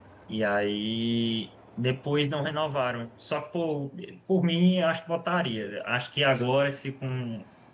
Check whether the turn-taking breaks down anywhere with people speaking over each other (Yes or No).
No